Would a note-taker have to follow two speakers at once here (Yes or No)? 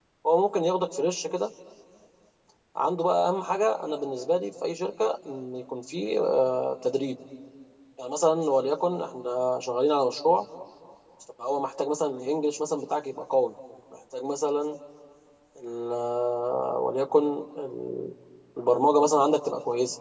No